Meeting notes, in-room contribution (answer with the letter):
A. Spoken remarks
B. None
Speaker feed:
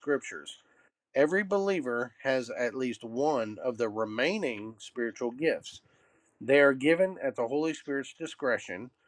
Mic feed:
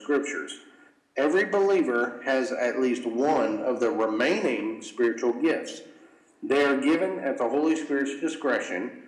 B